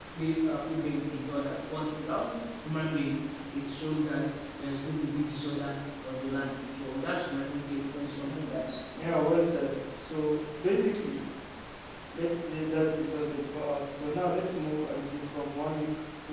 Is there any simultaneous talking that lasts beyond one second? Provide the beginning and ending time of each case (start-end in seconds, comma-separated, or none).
none